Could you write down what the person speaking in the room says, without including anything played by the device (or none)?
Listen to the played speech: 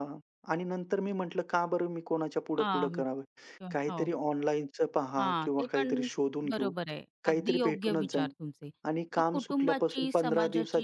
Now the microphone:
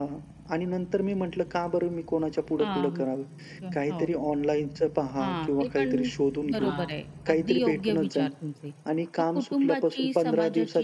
हां.